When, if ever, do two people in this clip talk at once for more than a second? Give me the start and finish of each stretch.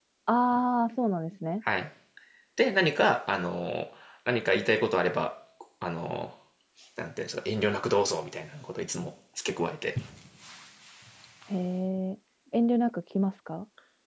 none

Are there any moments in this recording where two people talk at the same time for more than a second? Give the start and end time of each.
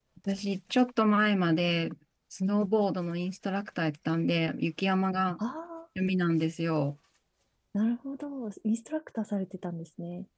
none

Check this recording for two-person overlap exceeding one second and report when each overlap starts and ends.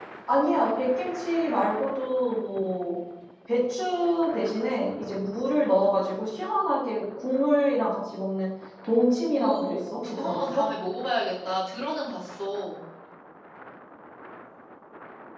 9.3-10.6

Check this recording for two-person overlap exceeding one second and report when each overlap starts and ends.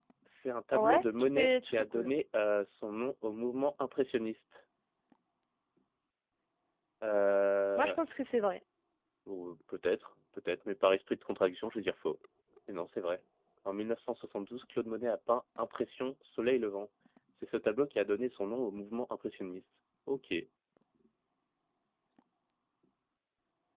0.7-2.1

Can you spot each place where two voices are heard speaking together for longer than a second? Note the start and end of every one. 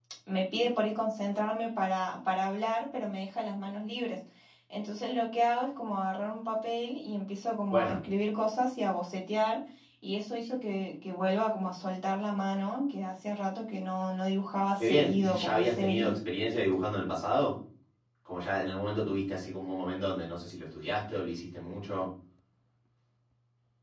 14.8-16.1

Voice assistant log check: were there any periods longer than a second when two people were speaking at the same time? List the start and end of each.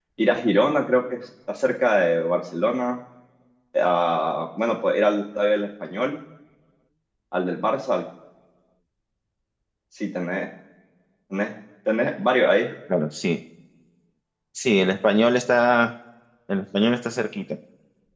none

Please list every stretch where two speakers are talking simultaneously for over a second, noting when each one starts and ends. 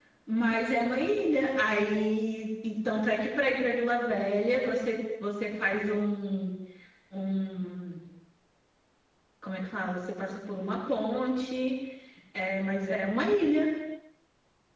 none

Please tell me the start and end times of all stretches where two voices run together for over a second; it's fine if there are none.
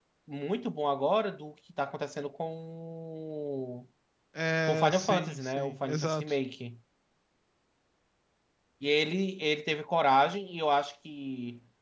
4.6-6.4

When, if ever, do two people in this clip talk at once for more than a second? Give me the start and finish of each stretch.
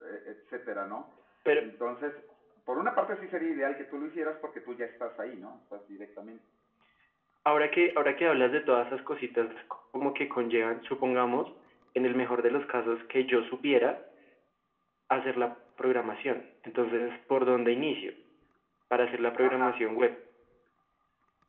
none

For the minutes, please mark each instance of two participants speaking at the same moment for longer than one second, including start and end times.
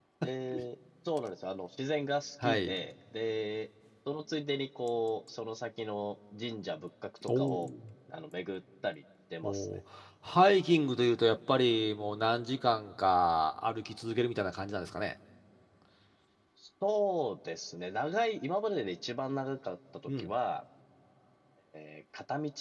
none

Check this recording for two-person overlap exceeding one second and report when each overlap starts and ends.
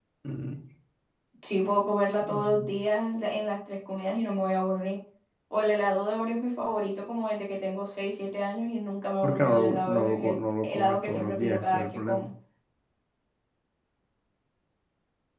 9.2-12.3

